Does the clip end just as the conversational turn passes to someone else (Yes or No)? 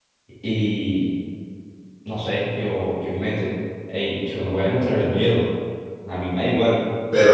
Yes